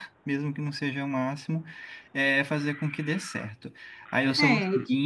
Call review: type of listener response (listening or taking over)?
listening